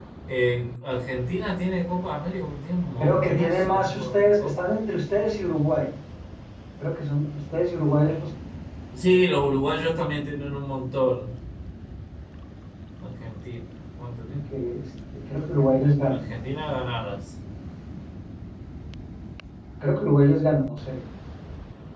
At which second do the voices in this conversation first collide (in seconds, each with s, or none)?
3.0 s